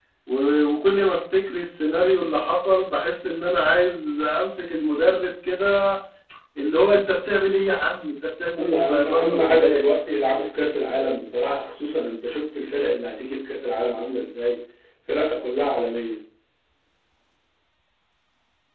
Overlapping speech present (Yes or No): Yes